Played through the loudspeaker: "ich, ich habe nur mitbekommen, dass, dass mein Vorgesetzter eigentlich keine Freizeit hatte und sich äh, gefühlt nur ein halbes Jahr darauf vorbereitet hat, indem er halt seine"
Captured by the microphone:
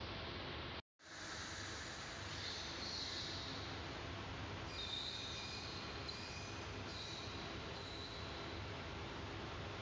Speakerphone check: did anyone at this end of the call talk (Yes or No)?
No